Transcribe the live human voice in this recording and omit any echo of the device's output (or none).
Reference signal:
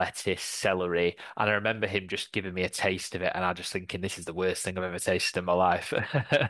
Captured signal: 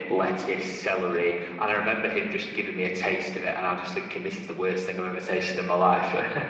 none